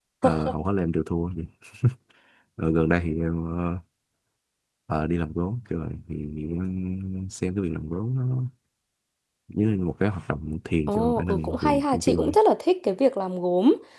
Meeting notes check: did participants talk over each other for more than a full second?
Yes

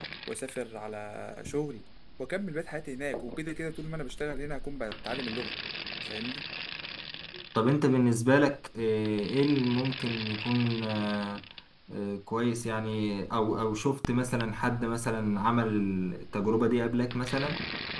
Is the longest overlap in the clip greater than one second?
No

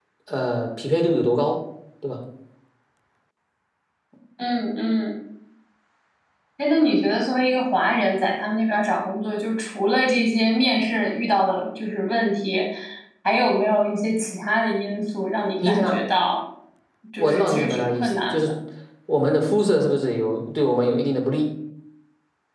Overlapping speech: Yes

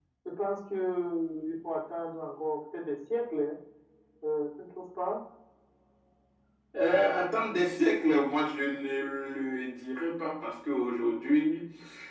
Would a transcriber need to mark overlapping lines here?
No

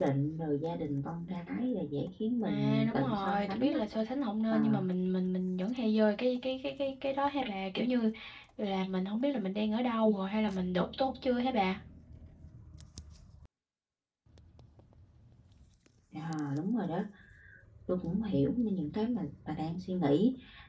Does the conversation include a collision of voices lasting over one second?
Yes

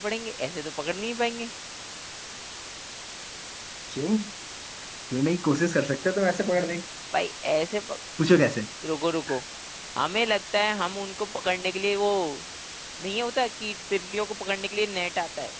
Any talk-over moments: No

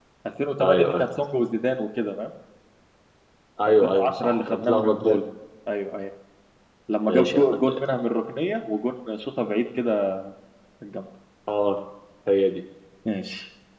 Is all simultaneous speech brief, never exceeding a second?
No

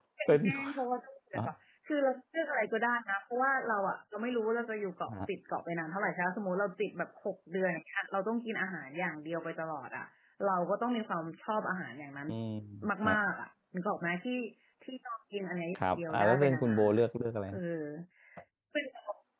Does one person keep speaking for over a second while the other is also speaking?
Yes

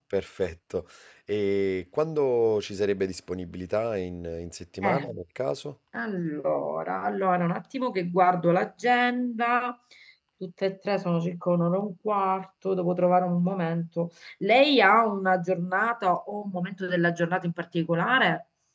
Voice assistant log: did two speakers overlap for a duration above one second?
No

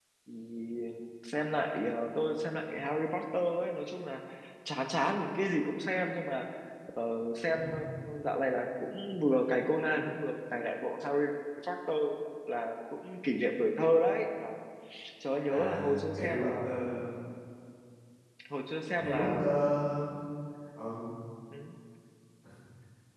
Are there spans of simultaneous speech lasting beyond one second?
Yes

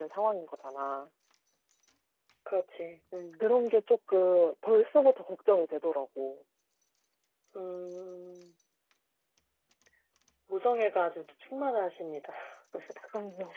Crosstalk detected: No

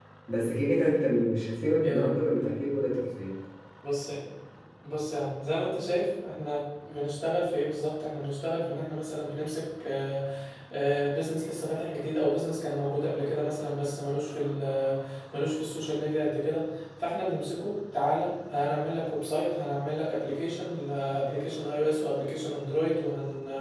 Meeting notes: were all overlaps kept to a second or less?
Yes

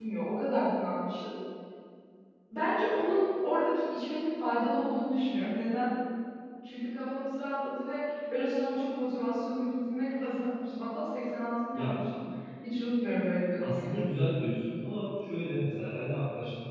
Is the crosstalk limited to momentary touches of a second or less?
Yes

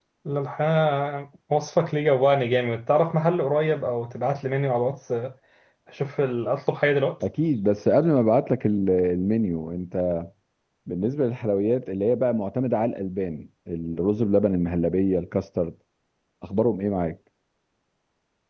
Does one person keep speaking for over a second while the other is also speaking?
No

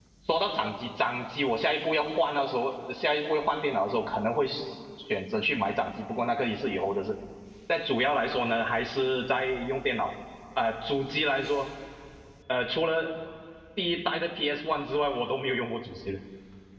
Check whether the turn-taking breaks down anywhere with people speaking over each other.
No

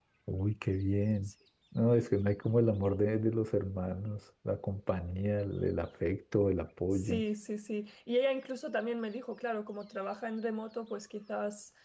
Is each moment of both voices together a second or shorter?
Yes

